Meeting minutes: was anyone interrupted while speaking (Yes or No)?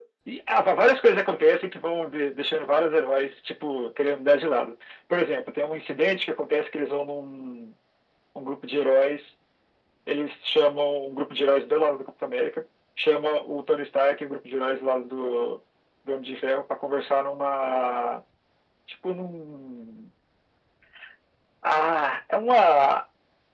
No